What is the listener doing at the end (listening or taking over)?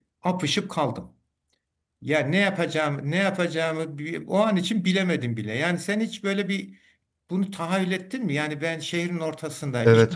listening